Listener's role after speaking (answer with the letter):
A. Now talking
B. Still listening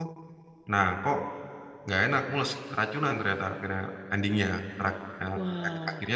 B